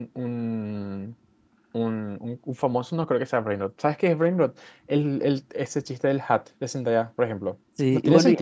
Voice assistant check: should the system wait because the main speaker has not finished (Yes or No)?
No